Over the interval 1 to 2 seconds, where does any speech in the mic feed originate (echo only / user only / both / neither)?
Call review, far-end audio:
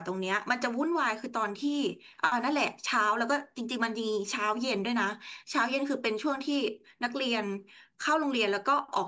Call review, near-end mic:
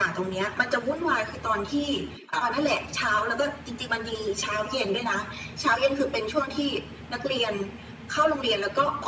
echo only